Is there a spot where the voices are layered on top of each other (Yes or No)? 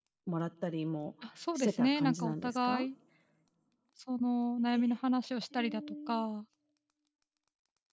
Yes